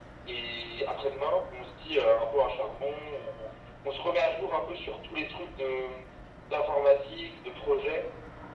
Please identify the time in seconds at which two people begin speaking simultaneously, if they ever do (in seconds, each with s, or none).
none